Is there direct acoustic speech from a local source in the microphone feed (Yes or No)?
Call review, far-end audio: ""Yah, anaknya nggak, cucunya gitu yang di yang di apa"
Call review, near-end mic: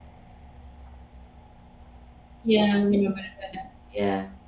Yes